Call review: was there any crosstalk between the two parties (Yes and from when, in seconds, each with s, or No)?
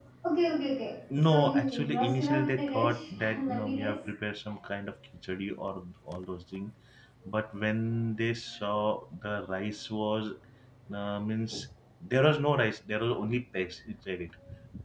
Yes, from 1.1 s